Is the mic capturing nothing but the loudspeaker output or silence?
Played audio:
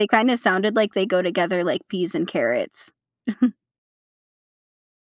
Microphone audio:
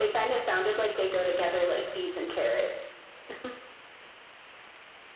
Yes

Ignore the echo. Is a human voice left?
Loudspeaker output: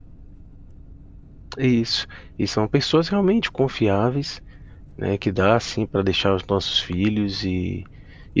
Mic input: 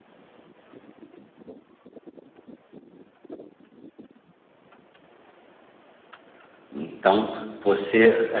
Yes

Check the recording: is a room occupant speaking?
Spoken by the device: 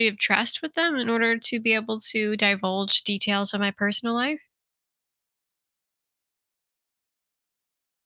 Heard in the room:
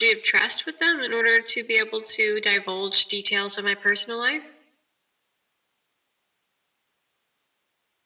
No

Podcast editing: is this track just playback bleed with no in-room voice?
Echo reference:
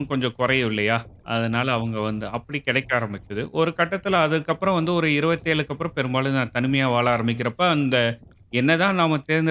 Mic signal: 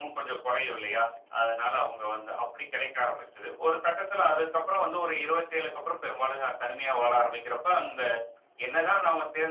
Yes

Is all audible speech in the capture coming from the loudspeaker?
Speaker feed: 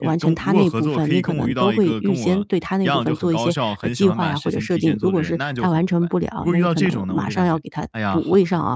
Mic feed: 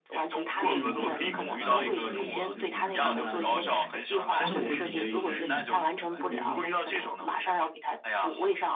No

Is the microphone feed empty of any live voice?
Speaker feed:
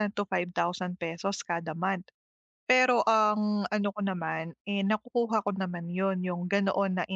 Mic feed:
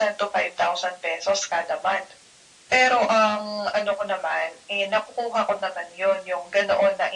Yes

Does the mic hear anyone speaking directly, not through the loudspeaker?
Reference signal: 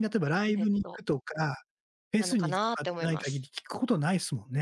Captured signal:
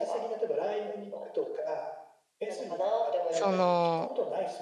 Yes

